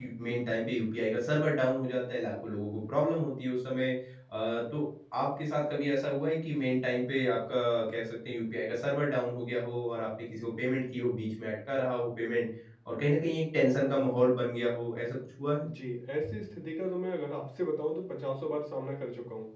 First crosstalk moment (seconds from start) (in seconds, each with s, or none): none